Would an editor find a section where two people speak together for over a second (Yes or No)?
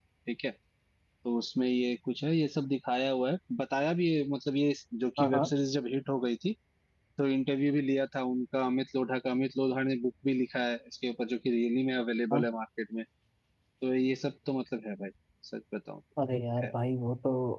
No